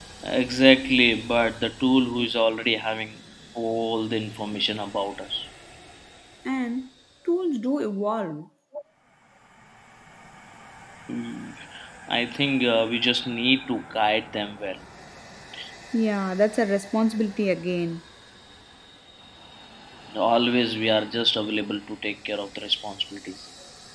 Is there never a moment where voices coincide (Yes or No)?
Yes